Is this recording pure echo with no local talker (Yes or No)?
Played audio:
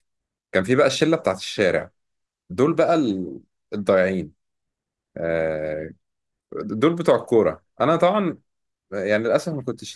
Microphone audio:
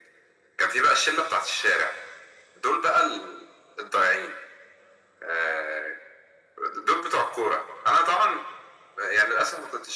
Yes